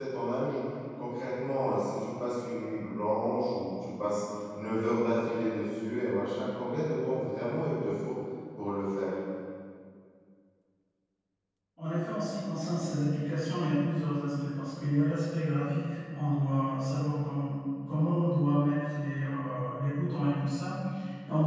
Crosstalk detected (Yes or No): No